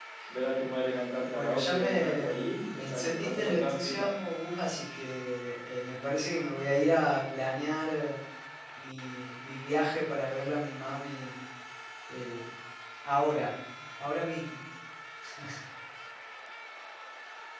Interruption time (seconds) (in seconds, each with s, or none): 1.3 s